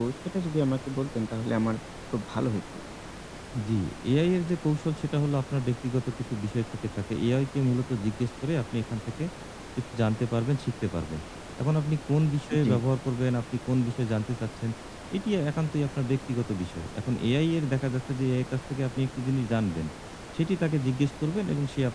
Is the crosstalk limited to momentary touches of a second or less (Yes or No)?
Yes